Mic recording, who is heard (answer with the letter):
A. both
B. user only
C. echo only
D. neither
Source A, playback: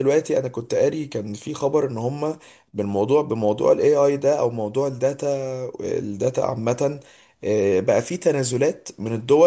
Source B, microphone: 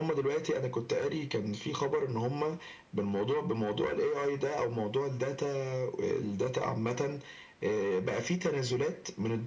C